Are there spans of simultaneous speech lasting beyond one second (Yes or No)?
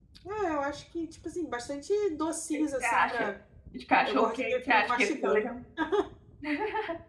Yes